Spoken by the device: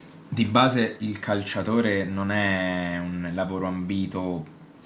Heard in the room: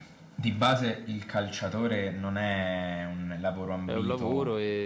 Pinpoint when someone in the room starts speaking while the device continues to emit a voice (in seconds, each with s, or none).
3.8 s